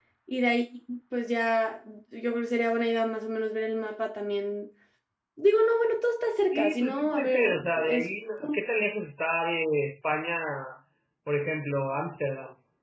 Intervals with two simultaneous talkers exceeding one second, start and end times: 6.5-8.1

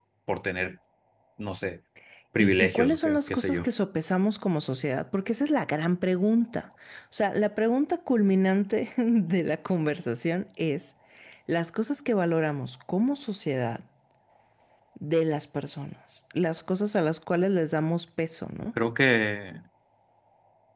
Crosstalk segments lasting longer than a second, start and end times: 2.4-3.6

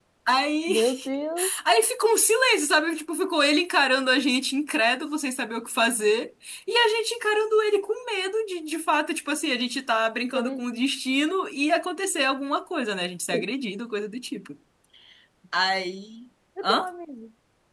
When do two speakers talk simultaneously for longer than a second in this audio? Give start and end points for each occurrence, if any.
none

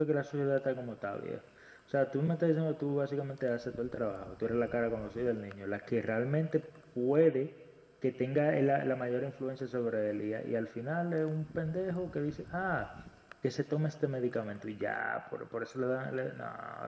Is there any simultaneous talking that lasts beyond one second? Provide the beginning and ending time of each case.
none

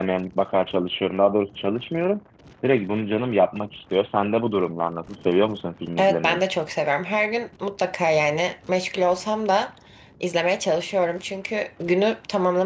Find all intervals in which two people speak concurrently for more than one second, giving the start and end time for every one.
none

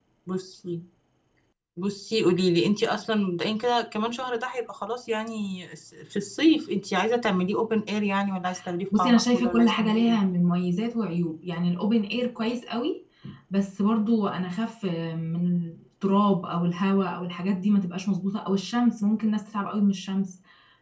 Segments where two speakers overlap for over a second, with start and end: 9.0-10.2

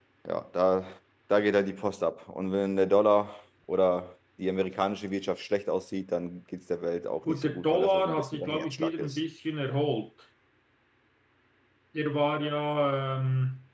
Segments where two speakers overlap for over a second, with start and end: 7.3-9.2

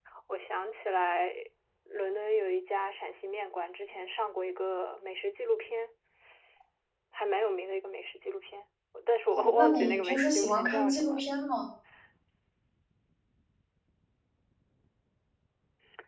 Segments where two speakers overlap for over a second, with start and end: 9.3-11.2

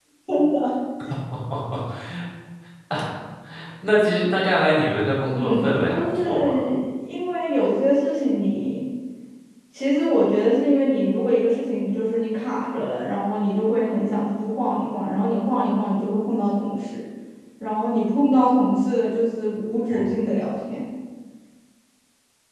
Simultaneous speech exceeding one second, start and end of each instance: 5.3-6.6

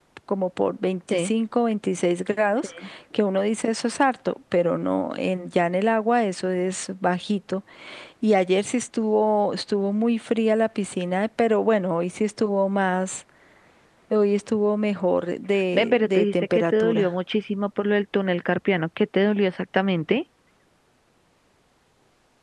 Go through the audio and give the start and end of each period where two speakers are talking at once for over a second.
15.7-17.1

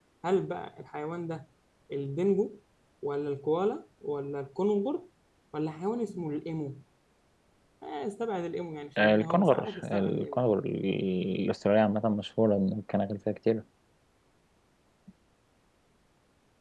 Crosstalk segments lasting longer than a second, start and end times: 9.0-10.4

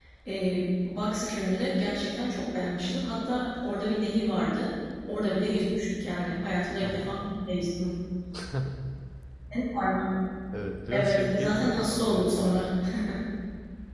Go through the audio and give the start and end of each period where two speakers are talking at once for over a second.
10.9-12.5

